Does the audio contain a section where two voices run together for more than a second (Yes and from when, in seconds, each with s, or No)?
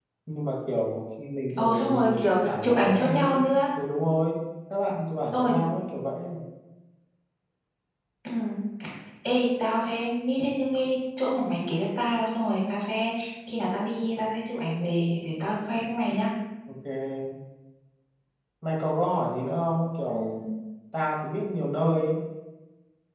Yes, from 1.6 s